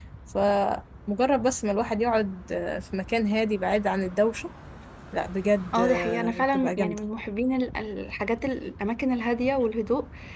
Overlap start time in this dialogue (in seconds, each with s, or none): 5.7 s